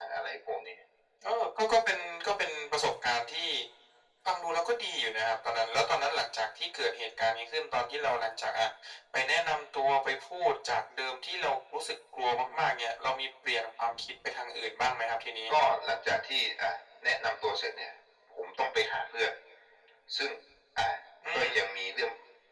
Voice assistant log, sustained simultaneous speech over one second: none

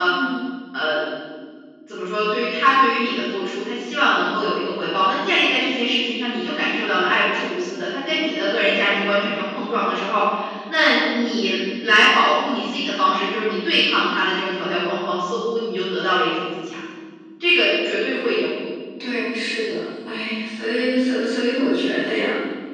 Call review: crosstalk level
none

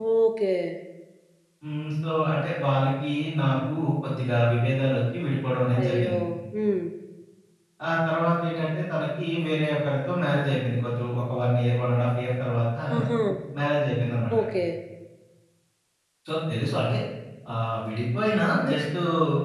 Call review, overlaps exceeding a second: none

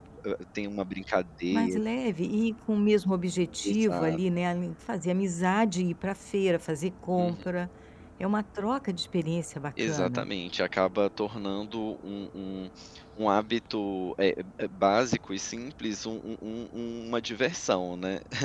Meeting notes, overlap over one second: none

